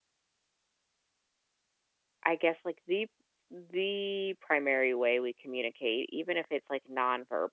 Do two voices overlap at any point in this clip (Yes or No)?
No